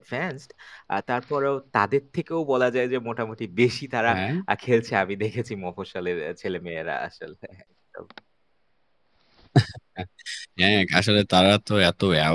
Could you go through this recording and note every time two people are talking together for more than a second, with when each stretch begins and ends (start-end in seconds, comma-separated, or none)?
none